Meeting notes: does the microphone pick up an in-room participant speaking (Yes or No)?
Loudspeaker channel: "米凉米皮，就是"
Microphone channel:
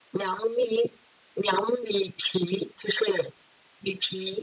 No